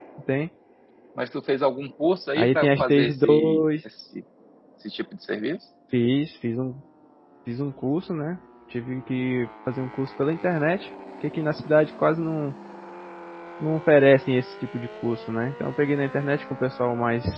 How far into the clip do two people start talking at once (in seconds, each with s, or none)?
2.4 s